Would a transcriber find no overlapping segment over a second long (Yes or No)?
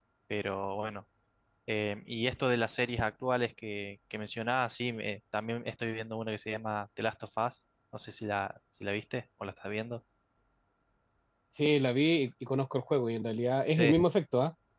Yes